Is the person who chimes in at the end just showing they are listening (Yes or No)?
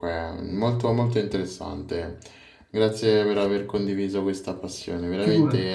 Yes